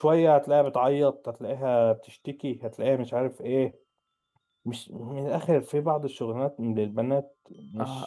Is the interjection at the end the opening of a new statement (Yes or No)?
Yes